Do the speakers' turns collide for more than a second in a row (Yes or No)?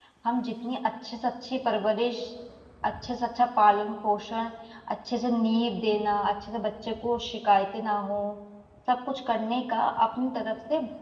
No